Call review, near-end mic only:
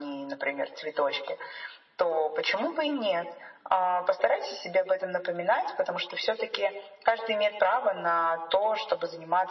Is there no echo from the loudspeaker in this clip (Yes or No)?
No